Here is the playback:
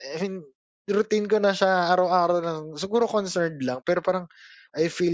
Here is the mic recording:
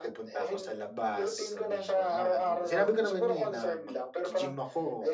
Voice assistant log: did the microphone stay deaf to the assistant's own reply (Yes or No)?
No